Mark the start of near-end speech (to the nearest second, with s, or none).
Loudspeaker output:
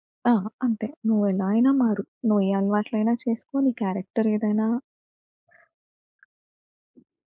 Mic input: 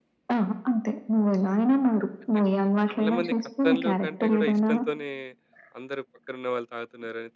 2 s